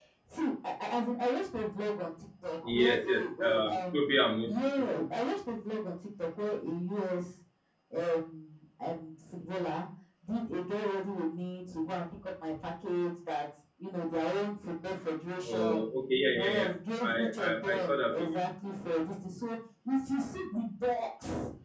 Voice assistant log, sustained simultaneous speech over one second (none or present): present